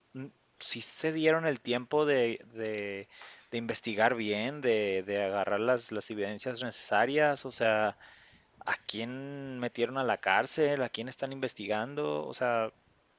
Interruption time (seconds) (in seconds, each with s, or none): none